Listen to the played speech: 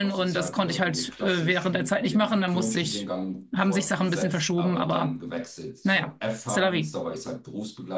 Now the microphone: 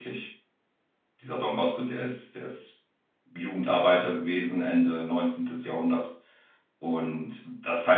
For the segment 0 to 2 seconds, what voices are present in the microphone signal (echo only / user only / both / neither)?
user only